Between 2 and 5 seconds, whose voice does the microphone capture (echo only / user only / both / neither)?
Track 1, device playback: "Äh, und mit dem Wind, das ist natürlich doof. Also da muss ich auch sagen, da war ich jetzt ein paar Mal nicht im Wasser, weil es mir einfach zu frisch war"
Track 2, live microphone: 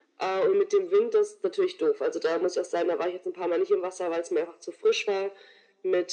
echo only